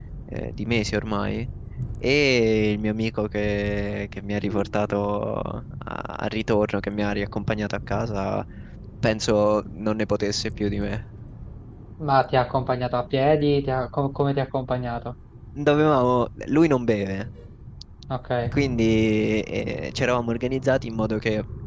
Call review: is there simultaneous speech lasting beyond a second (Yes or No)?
No